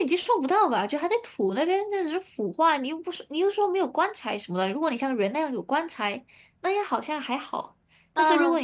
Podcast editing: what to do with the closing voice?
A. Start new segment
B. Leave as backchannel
B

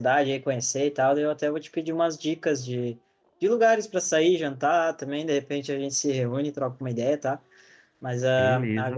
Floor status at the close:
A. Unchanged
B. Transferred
A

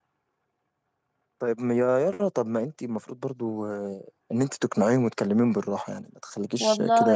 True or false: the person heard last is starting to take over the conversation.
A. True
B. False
A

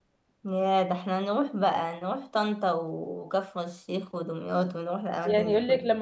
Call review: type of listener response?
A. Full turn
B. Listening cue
A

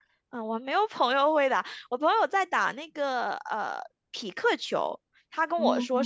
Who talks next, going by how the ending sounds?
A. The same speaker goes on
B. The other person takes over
A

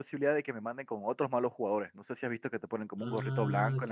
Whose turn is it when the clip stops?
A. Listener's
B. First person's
A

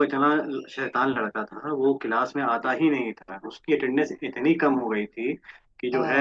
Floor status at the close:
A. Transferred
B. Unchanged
B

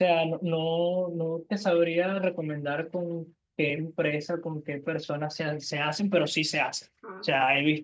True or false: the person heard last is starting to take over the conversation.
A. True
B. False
B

